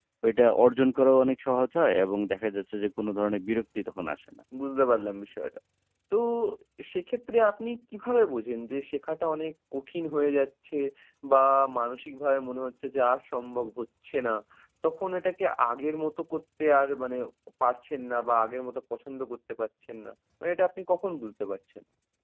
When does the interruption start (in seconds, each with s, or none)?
none